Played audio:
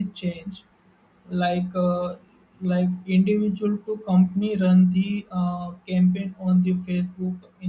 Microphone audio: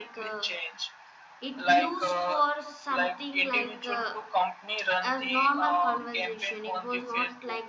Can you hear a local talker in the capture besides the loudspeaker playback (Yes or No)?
Yes